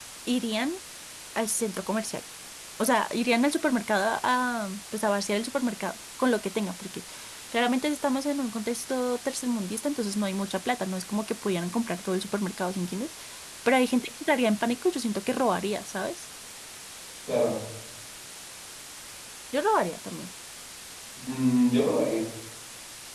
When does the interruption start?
none

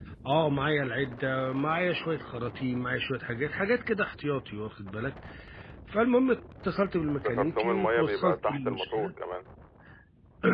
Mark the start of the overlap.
7.1 s

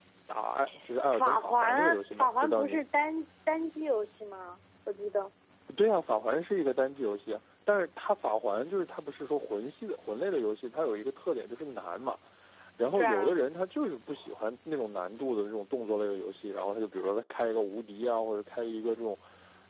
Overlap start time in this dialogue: 1.1 s

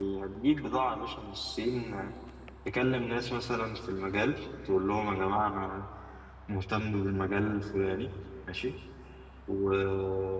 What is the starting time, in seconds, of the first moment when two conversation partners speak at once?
none

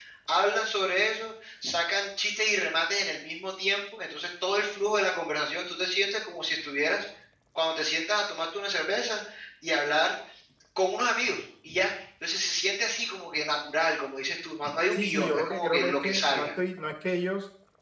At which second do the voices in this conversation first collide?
14.9 s

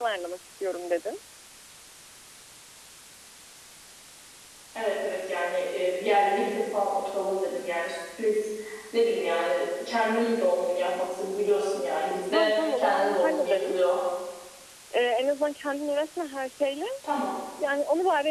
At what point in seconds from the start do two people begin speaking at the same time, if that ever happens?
12.3 s

